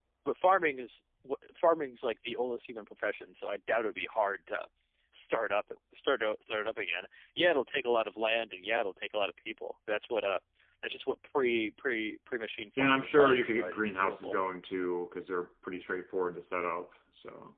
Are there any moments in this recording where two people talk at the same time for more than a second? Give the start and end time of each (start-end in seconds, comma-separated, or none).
12.8-14.3